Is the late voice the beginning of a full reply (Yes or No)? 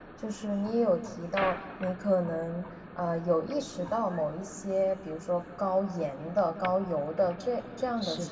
No